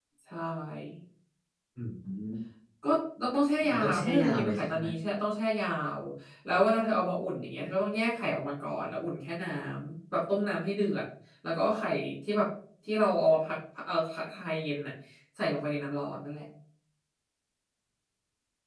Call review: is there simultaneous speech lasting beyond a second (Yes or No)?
Yes